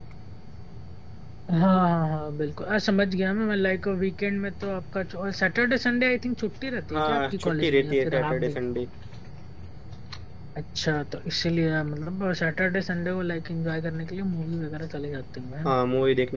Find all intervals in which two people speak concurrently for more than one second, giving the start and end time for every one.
6.9-8.6

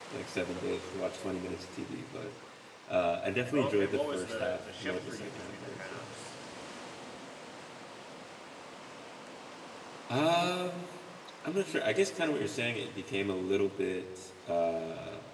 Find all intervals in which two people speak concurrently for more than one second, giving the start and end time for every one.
3.5-6.1

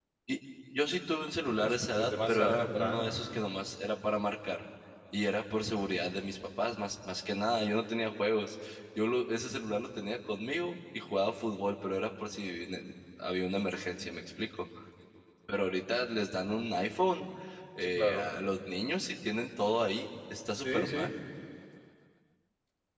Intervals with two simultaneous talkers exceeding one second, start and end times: 1.6-3.4

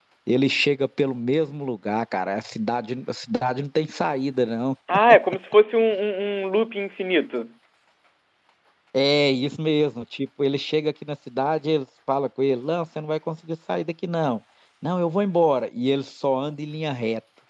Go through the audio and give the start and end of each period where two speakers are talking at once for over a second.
none

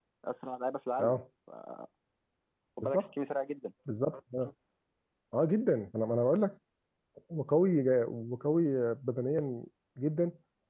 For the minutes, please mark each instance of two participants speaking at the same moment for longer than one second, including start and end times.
none

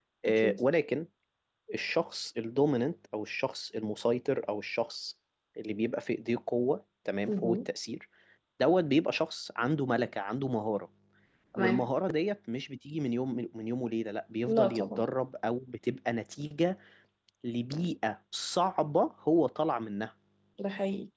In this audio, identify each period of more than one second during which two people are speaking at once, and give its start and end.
none

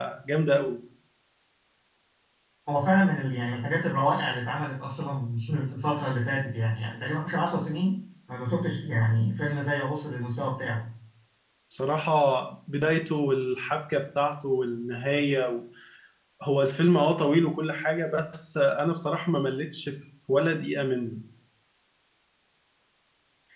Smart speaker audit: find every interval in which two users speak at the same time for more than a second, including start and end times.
none

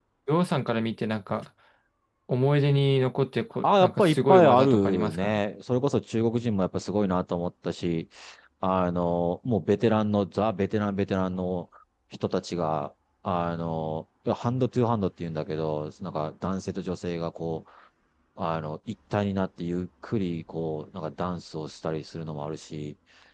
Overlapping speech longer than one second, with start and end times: 3.6-5.4

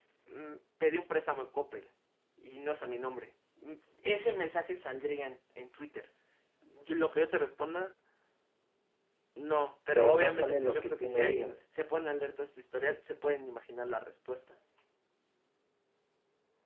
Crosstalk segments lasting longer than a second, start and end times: 9.9-11.6

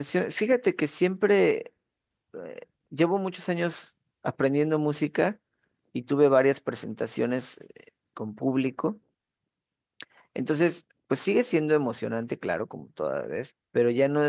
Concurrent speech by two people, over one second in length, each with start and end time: none

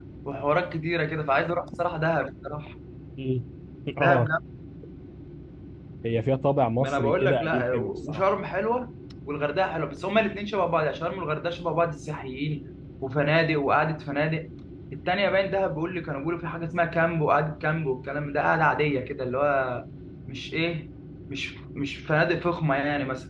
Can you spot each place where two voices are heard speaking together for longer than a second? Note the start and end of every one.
6.8-8.2

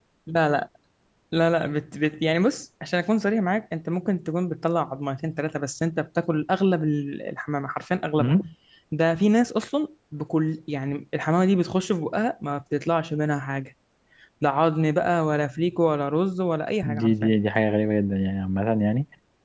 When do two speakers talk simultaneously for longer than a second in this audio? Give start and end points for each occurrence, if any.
none

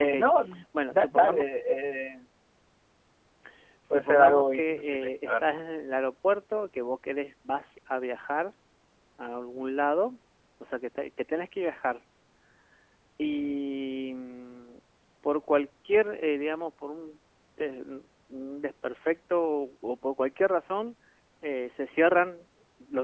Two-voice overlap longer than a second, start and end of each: 3.9-5.4

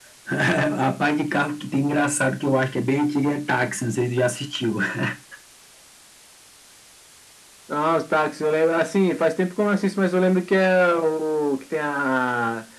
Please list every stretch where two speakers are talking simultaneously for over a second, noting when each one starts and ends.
none

